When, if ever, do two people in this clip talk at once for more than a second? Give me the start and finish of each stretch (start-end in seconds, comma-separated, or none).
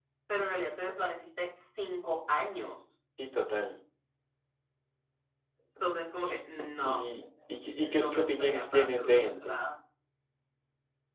7.7-9.6